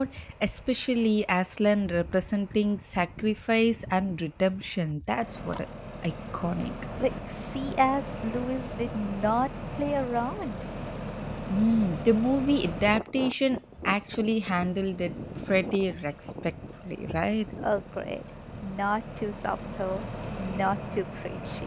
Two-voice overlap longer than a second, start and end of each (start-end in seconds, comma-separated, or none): none